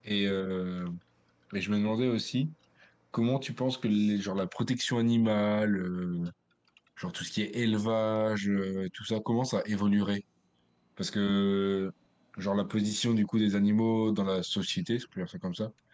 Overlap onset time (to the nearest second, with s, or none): none